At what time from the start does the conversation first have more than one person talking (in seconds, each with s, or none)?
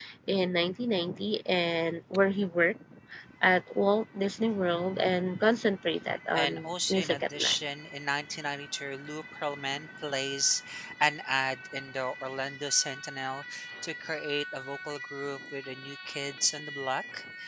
6.3 s